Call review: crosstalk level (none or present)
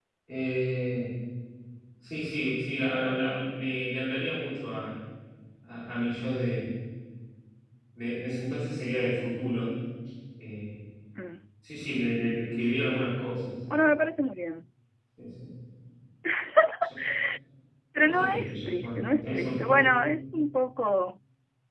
present